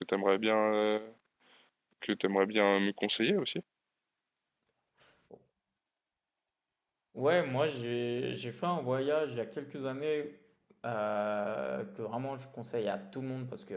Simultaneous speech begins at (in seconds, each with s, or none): none